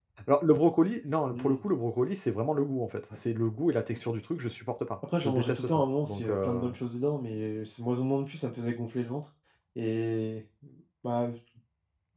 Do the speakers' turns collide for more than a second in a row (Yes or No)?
Yes